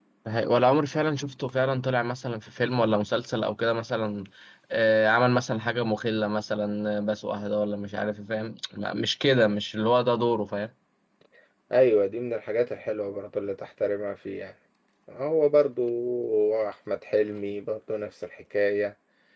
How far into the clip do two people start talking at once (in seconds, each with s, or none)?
none